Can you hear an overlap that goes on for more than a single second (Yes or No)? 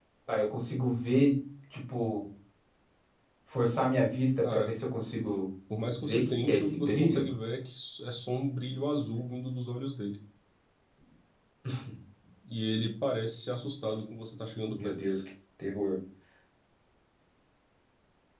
Yes